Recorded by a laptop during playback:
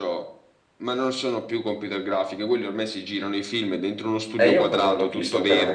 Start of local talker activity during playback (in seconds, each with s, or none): 4.4 s